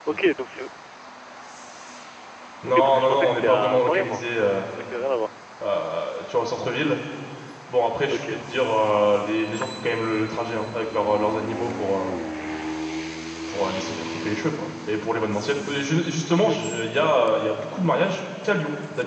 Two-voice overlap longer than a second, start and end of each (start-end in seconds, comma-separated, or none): 2.7-4.2